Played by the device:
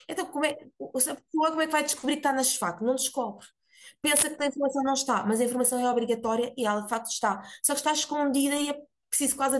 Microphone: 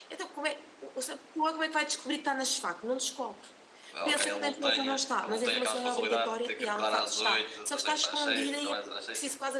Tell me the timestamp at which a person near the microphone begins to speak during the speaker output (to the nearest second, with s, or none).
4 s